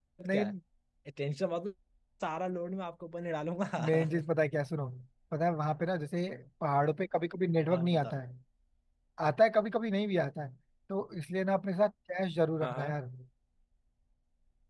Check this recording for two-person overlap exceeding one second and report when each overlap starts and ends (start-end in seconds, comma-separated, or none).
none